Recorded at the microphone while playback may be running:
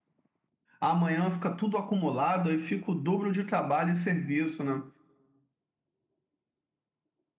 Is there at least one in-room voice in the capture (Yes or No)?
Yes